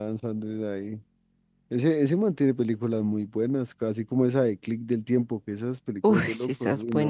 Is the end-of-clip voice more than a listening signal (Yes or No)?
Yes